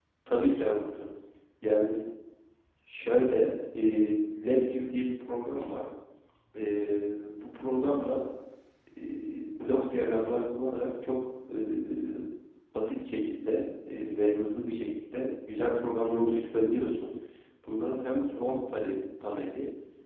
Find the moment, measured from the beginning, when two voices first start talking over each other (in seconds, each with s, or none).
none